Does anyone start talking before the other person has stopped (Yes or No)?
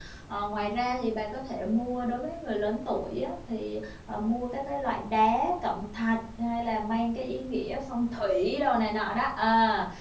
No